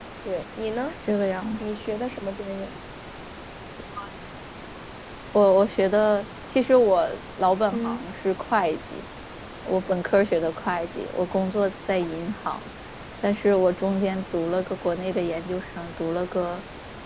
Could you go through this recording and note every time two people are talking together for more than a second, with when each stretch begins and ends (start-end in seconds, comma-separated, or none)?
none